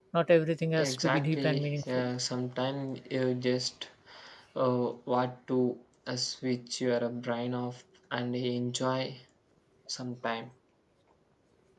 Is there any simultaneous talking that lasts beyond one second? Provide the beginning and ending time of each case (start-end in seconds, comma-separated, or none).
0.8-2.0